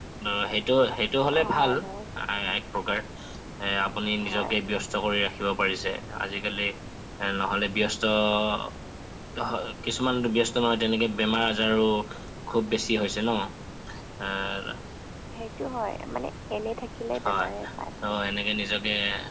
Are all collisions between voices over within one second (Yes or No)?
Yes